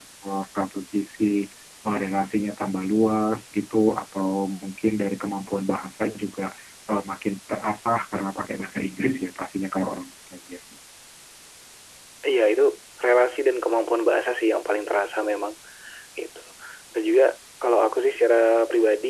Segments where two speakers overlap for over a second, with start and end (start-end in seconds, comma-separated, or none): none